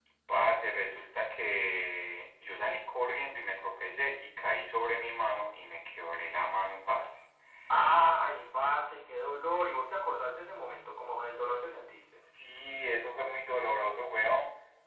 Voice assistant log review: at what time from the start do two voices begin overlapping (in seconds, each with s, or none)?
none